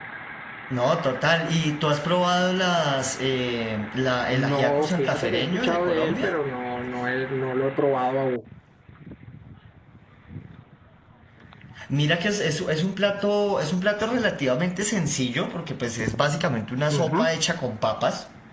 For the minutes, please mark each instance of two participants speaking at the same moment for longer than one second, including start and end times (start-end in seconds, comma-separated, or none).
4.3-6.3